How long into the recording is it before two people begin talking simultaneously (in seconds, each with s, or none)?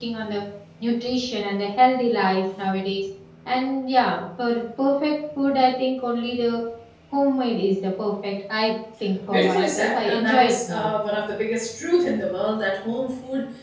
9.3 s